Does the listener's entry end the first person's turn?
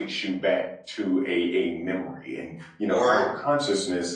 No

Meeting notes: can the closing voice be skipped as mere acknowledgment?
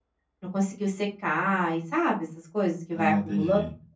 No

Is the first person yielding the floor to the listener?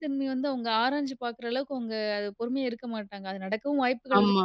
No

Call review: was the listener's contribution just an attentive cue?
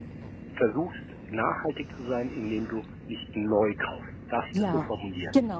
No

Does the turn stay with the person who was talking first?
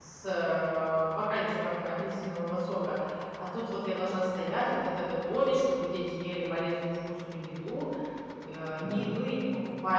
Yes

